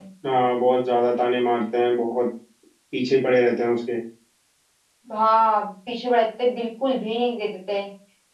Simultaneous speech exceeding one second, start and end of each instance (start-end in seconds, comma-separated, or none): none